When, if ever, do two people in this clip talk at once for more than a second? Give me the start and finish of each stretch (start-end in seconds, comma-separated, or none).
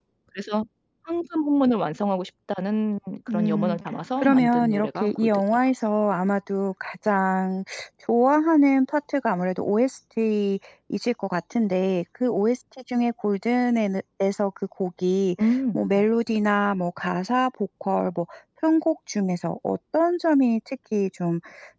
4.2-5.4